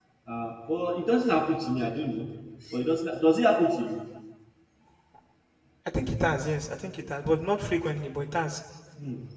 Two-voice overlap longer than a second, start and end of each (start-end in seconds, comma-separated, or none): none